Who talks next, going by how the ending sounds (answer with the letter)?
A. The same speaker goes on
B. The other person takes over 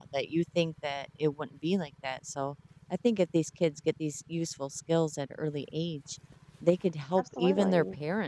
A